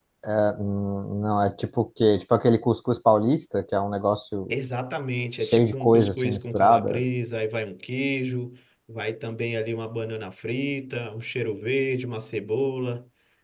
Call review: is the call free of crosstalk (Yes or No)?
No